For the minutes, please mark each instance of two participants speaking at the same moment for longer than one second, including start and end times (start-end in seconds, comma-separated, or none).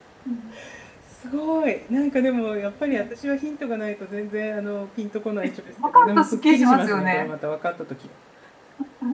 5.8-7.3